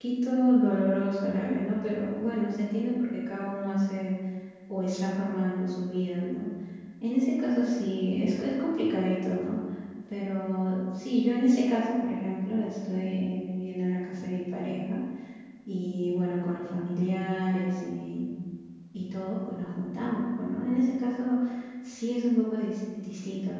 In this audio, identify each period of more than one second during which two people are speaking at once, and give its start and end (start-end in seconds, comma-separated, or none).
none